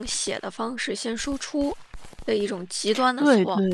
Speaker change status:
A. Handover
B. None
A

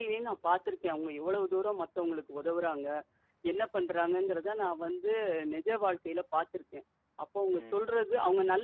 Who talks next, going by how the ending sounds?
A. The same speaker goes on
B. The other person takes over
A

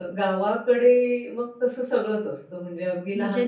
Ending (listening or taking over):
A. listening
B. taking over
B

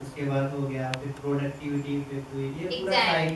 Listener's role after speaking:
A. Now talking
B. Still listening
A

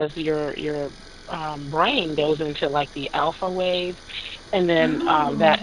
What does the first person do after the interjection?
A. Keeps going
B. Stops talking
A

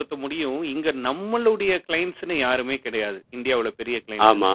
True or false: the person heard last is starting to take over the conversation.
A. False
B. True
A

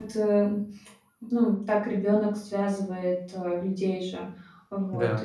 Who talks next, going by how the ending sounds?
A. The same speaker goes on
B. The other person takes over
A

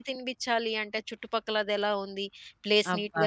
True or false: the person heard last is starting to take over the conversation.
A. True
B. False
B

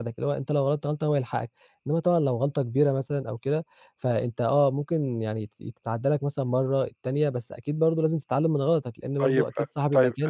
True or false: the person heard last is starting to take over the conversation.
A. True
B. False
A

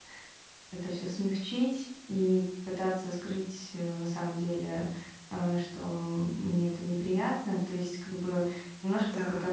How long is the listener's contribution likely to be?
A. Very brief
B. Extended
A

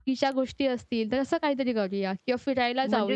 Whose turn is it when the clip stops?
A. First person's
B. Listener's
B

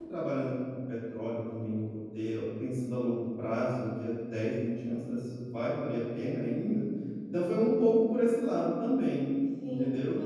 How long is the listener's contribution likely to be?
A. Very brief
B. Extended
B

